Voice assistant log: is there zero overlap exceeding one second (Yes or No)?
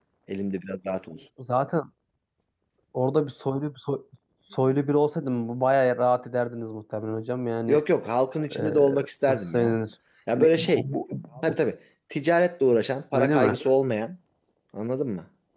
Yes